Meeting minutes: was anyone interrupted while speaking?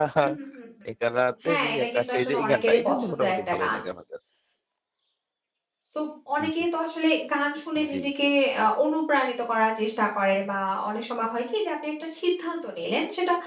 Yes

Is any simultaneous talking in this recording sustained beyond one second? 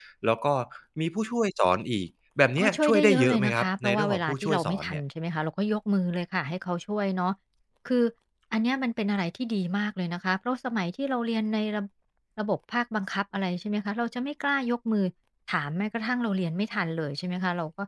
Yes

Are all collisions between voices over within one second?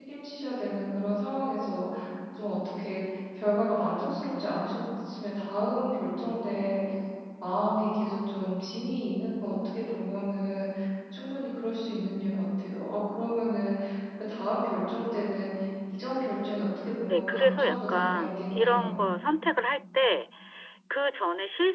No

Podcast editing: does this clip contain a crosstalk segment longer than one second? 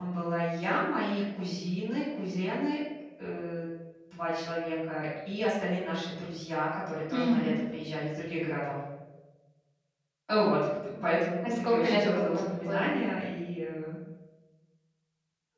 Yes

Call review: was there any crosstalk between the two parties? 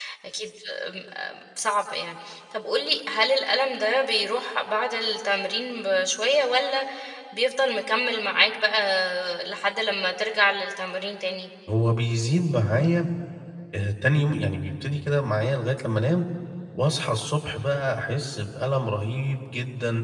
No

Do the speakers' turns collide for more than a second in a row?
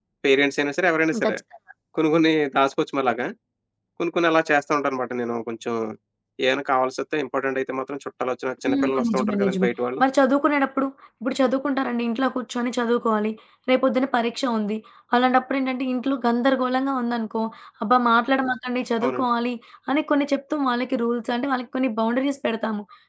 Yes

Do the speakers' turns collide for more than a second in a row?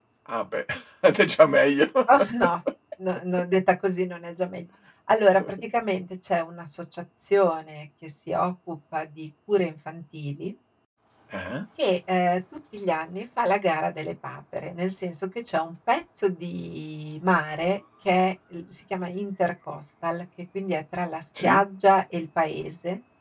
No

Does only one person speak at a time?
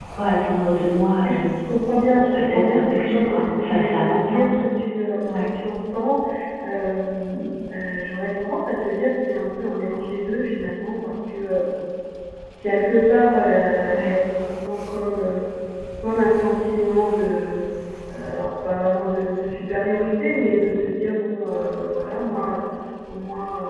No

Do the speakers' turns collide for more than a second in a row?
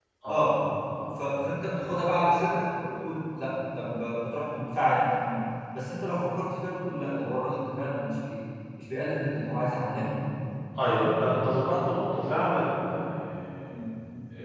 No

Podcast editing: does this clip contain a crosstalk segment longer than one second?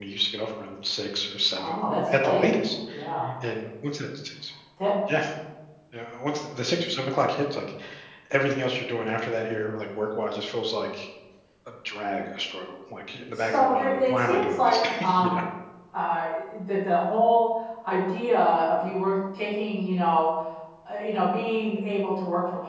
Yes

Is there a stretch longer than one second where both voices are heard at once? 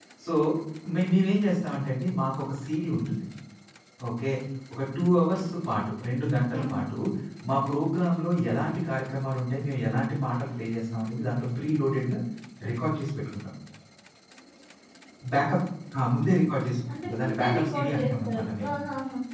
Yes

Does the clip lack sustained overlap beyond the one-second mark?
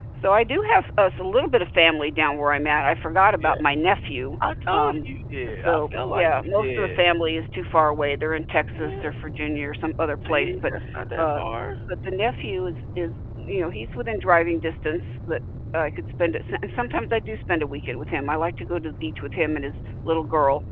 No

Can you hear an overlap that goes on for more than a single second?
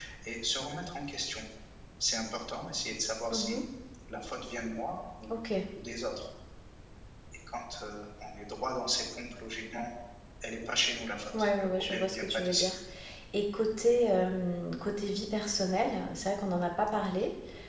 Yes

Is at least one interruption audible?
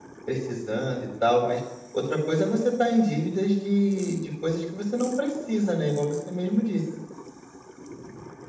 No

